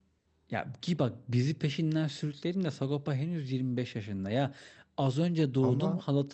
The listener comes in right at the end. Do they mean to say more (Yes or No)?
No